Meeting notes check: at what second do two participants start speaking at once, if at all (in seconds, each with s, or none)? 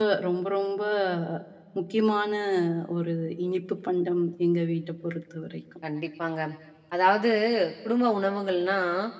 none